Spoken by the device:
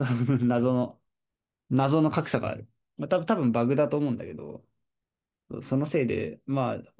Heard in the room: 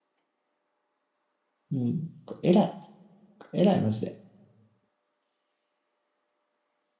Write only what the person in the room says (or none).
うん。これ偉い。偉い、マジで。